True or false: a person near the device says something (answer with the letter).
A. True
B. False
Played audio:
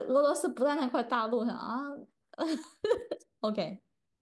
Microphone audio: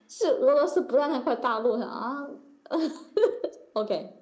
B